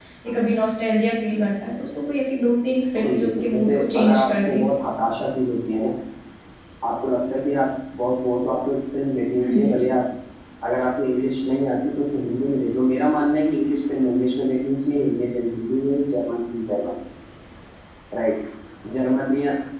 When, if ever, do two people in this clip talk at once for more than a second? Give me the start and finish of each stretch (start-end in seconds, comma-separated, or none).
3.0-4.7